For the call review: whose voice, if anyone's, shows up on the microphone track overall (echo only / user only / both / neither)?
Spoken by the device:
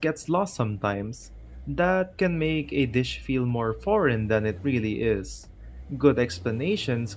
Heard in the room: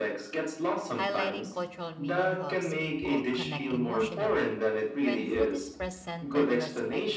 both